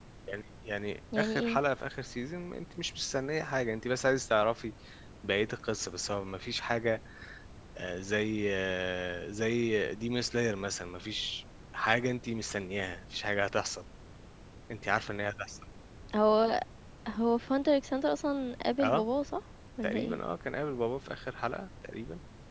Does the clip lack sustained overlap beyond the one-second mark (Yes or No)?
Yes